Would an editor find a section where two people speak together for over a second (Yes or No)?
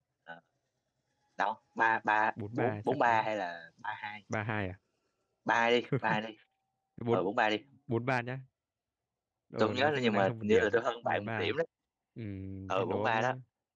Yes